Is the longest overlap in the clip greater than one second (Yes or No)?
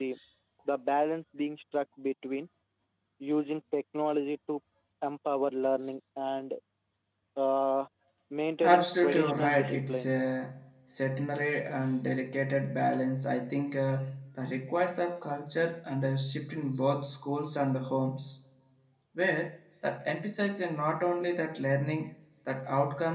Yes